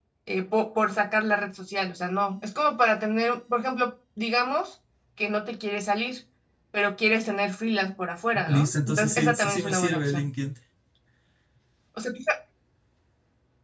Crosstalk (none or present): present